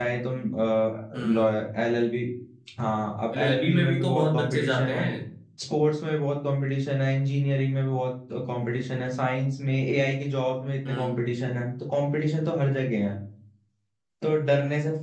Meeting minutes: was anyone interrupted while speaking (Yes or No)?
Yes